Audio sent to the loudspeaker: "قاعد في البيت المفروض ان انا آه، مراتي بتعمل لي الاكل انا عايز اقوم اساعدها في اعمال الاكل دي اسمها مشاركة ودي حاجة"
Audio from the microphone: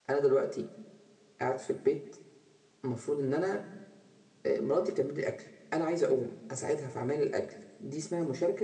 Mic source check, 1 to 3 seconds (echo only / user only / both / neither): echo only